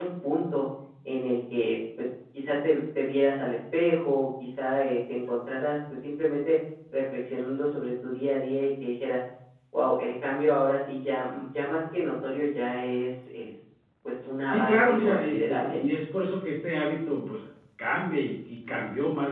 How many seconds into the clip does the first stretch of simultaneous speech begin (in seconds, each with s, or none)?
14.4 s